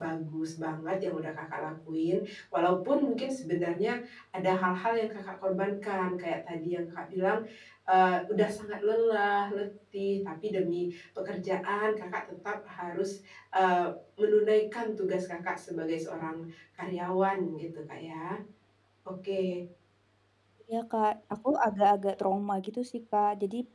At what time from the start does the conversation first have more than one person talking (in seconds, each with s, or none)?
none